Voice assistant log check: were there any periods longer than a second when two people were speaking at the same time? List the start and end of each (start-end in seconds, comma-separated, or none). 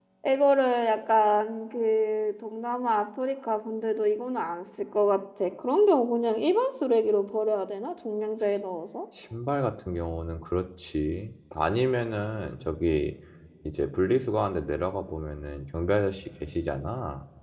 none